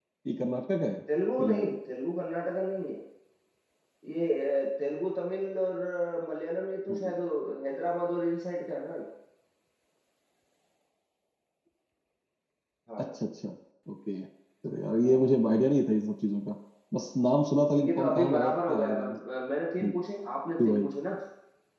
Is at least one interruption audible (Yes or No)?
Yes